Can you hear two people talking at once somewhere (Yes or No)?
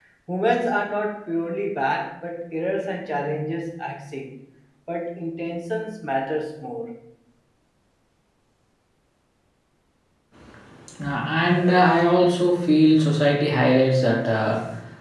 No